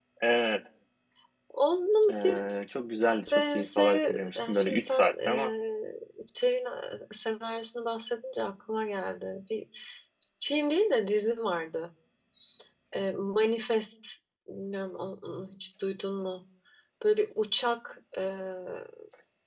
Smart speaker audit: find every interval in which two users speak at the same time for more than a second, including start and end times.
3.3-5.5

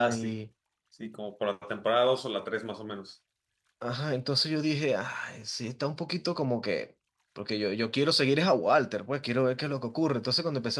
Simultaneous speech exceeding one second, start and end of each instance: none

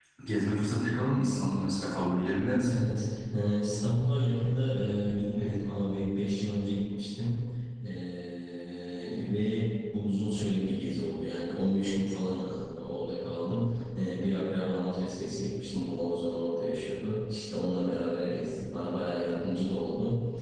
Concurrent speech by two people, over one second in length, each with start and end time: none

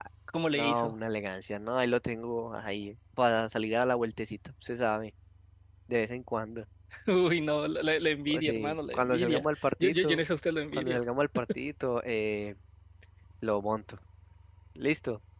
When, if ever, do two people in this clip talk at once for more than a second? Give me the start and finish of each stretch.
8.3-10.2

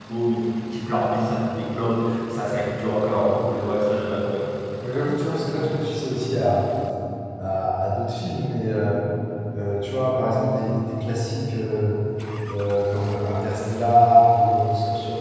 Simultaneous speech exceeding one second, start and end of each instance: none

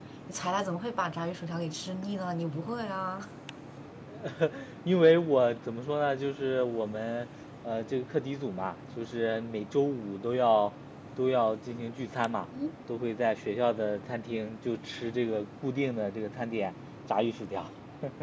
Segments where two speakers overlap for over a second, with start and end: none

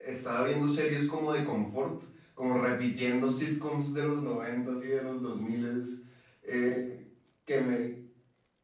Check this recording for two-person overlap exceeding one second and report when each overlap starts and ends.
none

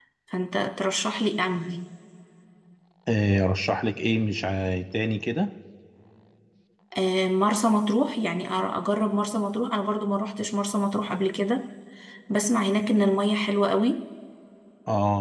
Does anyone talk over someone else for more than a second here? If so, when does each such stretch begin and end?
none

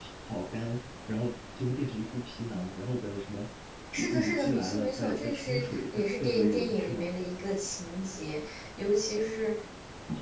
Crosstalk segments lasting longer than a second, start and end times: 4.1-7.1

